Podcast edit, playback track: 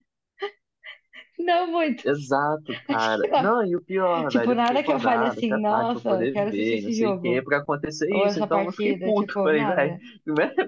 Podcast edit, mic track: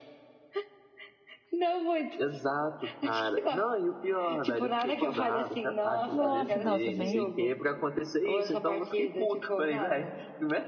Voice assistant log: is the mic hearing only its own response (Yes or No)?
No